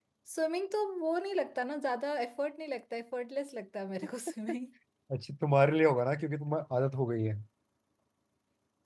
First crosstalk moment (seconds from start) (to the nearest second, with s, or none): none